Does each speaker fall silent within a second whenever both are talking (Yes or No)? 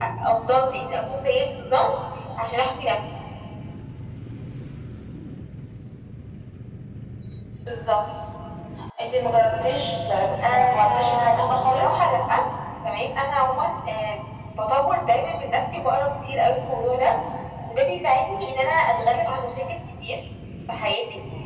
No